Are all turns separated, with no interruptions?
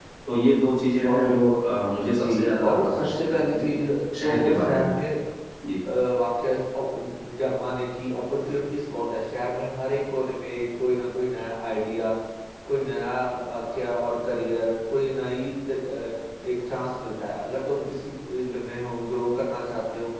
No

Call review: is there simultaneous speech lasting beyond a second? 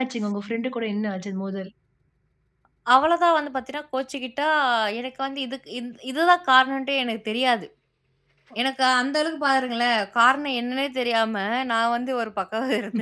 No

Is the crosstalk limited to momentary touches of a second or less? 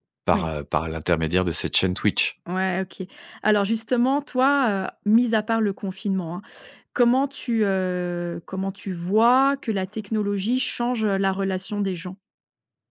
Yes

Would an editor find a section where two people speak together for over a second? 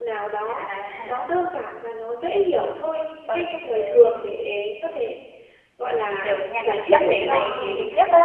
Yes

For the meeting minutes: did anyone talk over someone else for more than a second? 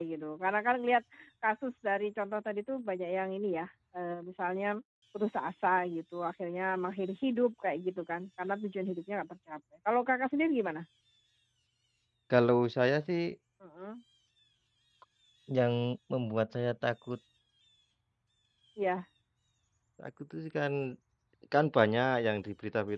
No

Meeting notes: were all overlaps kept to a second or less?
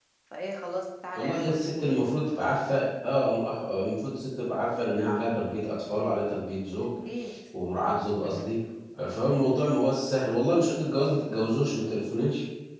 Yes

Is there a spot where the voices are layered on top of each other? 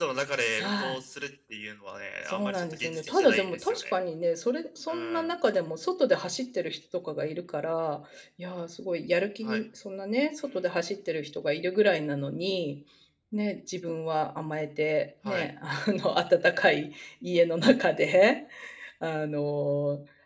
Yes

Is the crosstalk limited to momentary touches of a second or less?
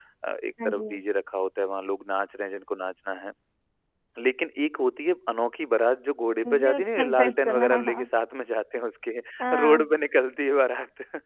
No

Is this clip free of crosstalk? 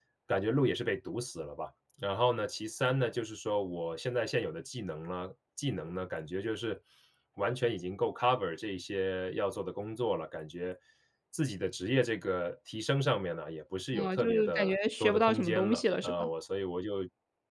No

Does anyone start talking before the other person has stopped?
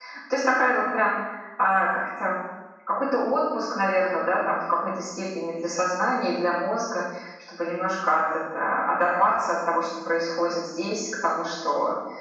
No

